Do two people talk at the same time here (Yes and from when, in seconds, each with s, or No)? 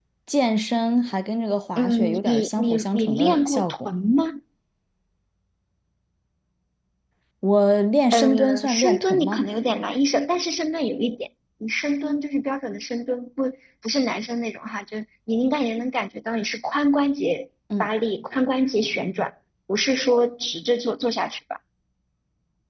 Yes, from 1.8 s